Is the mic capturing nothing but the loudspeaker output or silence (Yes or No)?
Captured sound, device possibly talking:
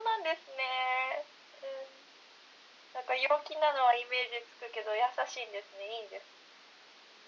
Yes